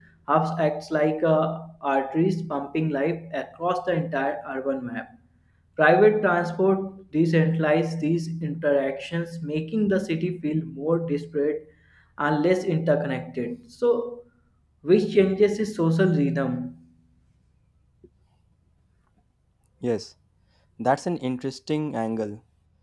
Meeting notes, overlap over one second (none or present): none